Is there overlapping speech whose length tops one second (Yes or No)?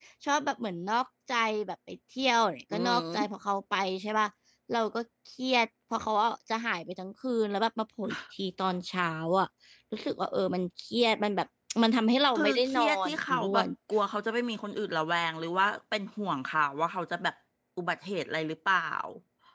Yes